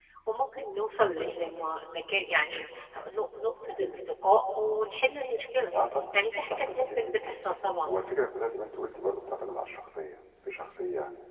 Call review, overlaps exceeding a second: present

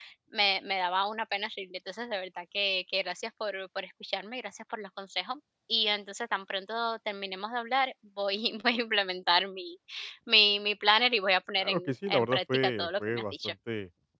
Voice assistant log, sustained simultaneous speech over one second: present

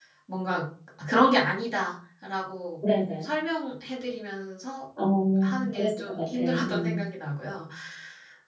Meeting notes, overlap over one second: present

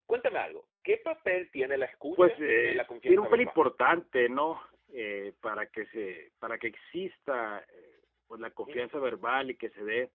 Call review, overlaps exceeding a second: present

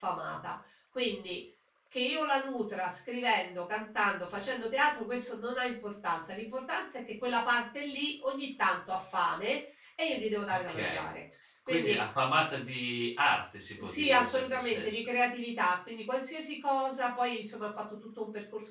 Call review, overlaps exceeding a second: present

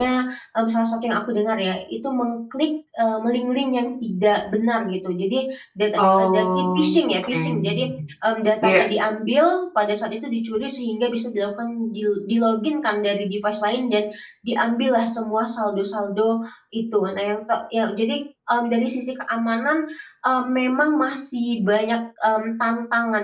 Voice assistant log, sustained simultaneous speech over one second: present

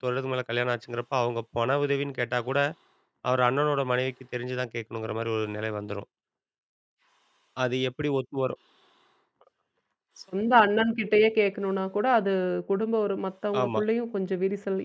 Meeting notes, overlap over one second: none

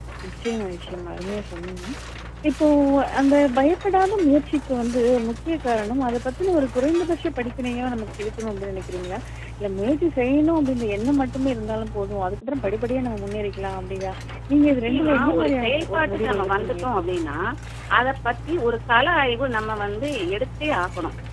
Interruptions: present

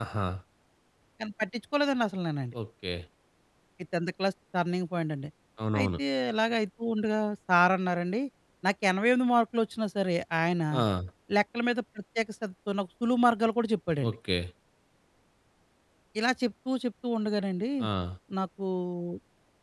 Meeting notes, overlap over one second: none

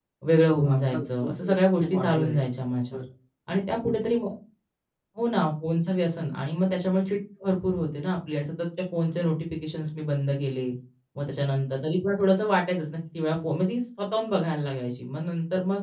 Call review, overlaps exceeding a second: present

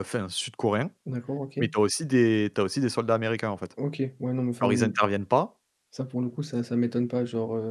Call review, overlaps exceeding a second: none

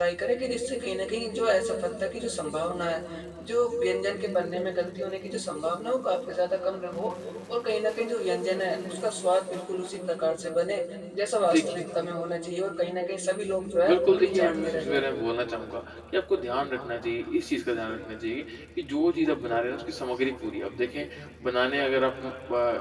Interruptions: present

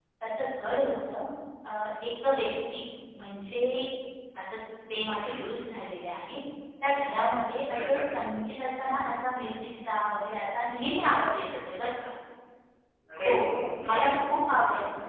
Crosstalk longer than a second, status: none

